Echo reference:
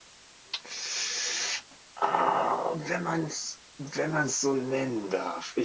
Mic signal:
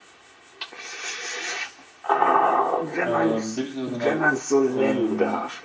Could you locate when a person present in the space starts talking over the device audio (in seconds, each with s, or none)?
3.0 s